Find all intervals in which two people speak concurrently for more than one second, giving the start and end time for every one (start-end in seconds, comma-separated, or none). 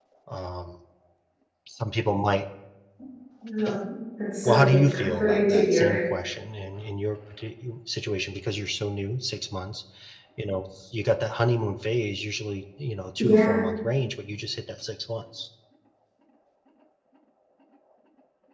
4.4-6.0